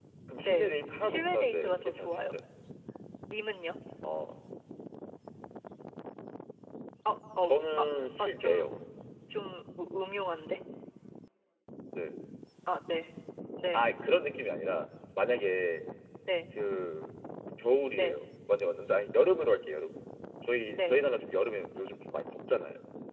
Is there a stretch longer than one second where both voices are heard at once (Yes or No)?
Yes